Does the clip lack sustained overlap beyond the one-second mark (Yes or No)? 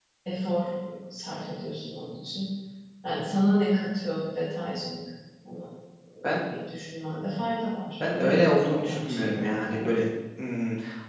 No